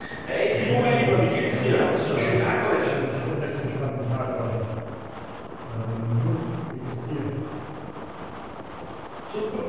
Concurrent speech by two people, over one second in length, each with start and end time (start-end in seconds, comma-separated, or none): 0.5-2.4